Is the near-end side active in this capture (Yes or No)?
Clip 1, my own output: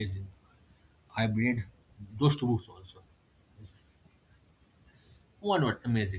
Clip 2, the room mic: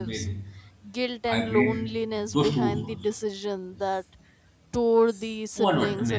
Yes